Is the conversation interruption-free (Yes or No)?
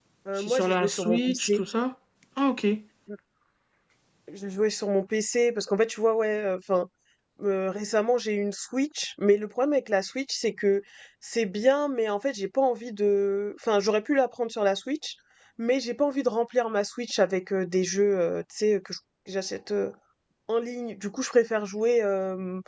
No